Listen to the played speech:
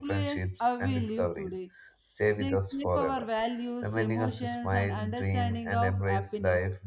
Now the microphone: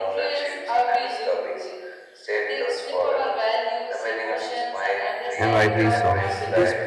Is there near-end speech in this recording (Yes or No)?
Yes